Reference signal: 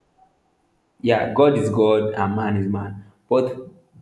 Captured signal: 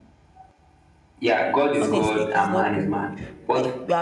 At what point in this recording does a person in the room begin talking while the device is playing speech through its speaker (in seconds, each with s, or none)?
1.8 s